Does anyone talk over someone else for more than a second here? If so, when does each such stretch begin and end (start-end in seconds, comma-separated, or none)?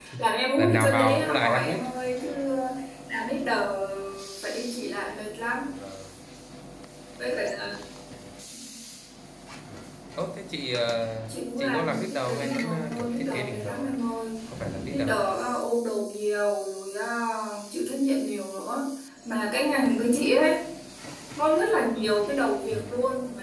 0.6-1.8, 11.6-13.9